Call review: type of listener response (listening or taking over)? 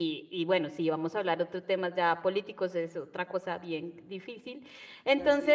listening